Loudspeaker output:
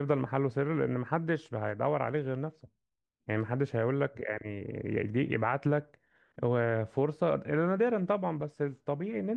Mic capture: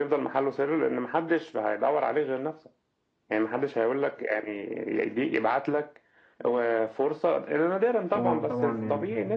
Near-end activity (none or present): present